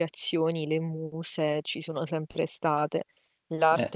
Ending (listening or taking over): listening